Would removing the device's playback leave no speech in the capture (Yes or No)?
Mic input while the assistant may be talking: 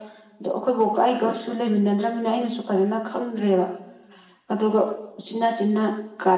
Yes